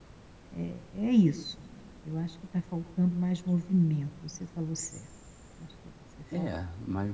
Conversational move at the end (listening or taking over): taking over